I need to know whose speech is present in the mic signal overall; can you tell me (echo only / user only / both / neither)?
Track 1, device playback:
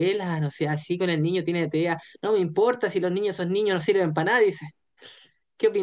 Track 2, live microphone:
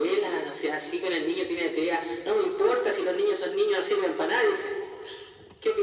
echo only